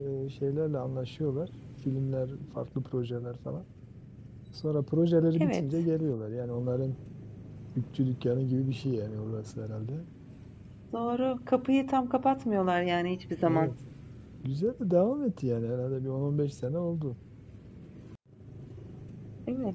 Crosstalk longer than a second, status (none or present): none